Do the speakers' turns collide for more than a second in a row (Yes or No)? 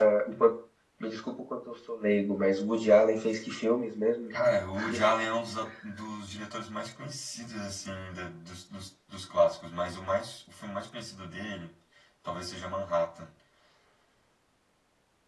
No